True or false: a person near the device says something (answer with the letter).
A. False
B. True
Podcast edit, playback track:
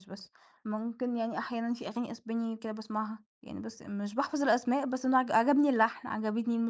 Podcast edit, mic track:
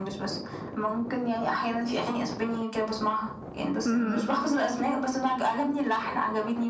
B